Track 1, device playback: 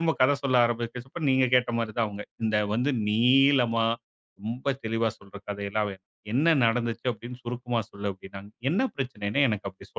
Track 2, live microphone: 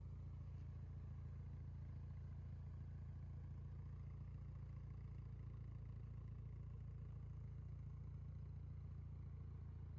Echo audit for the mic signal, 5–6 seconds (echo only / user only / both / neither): neither